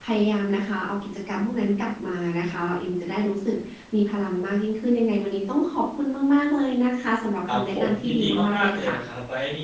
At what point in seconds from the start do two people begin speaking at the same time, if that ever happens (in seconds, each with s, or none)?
7.5 s